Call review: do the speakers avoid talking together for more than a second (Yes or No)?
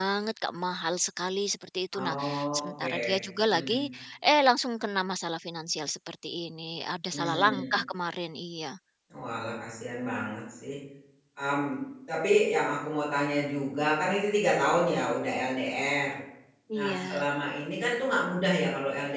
No